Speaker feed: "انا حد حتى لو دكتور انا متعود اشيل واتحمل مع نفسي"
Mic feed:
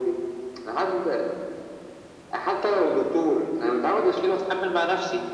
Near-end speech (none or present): none